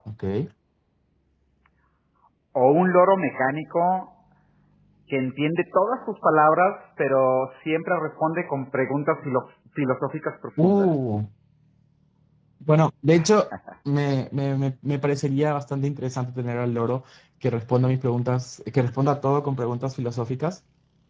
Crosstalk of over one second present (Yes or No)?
No